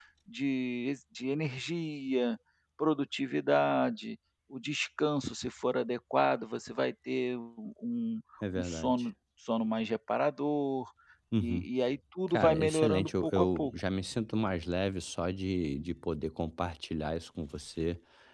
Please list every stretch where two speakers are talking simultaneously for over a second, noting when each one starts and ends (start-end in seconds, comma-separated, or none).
12.3-13.7